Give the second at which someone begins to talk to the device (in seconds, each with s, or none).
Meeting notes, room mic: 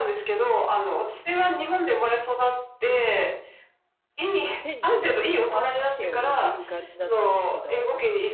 4.6 s